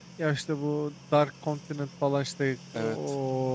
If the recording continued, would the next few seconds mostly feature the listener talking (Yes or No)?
No